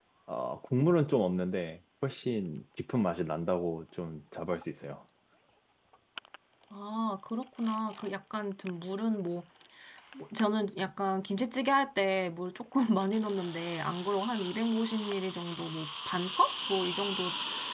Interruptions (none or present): none